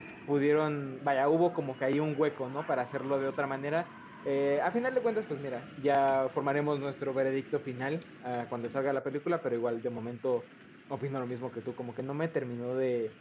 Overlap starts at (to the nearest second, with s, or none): none